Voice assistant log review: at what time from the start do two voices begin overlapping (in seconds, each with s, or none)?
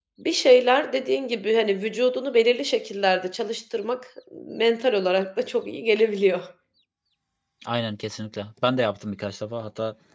none